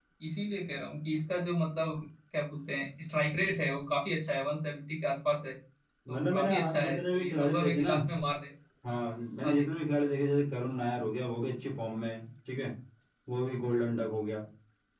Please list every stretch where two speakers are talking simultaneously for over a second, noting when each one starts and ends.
6.1-7.9

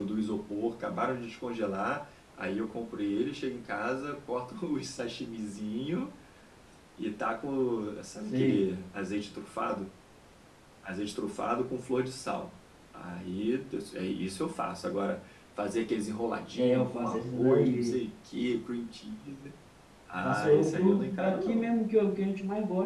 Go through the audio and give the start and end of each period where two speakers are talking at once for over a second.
16.5-17.9, 20.2-21.7

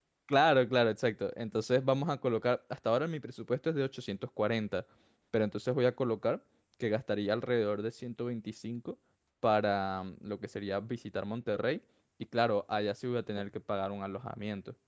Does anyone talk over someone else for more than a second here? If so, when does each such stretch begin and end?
none

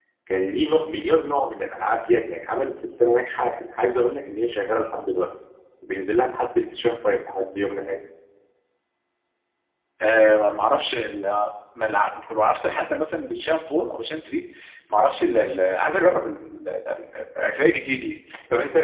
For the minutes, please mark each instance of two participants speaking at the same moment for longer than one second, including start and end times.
none

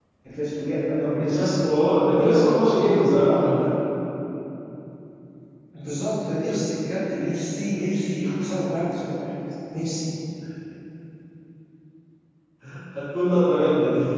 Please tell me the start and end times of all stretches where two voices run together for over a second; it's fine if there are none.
2.1-3.5

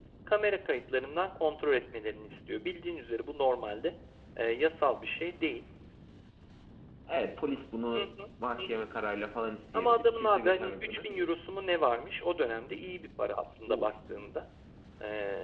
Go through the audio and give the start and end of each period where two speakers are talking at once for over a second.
9.7-11.3

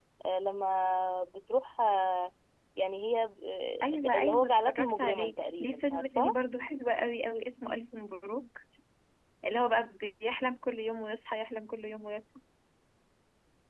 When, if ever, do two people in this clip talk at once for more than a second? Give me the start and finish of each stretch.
3.8-6.3

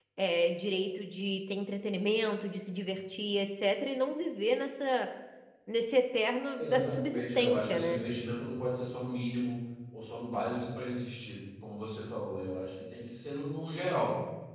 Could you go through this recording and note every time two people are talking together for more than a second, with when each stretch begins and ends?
6.6-8.0

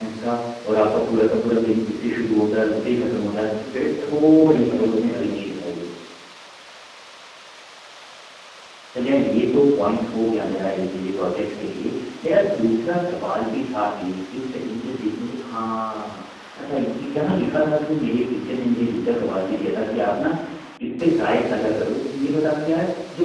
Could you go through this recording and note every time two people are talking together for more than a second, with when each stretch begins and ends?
3.8-5.4

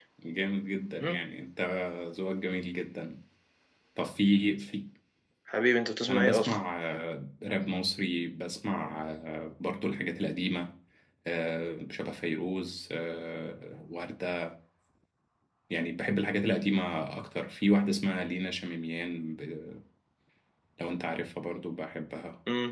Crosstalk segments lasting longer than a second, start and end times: none

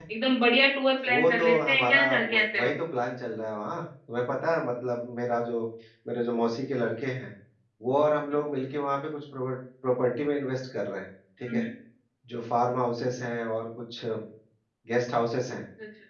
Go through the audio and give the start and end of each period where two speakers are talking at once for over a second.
1.1-2.7

